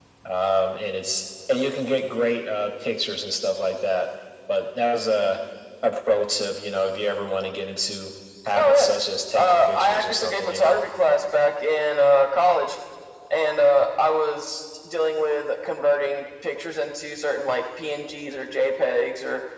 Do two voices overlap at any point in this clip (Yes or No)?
Yes